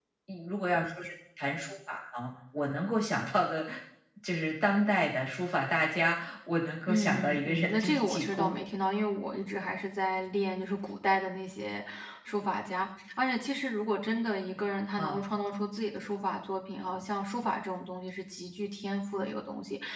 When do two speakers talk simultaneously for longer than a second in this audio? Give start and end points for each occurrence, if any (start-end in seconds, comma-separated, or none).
6.9-8.6